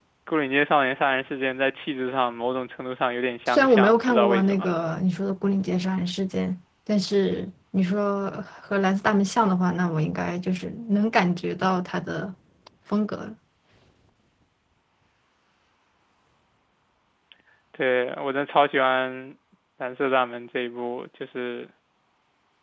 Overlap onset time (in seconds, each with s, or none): 3.5 s